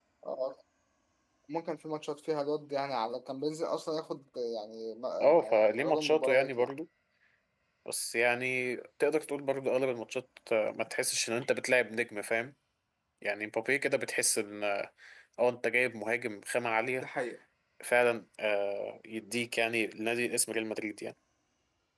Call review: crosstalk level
present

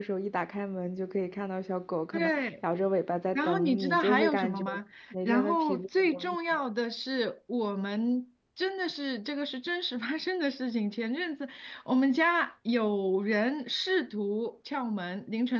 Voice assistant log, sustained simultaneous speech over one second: present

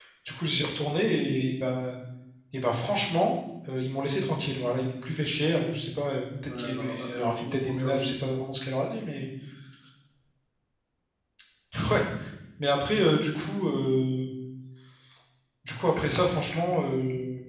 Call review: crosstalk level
present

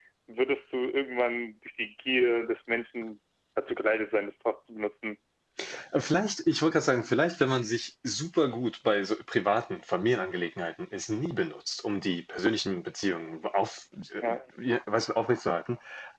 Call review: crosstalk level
none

